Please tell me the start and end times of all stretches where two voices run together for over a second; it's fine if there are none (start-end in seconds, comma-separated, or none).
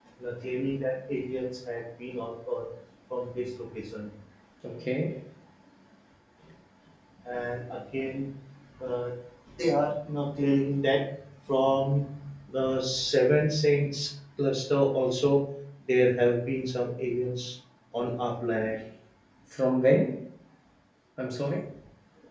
none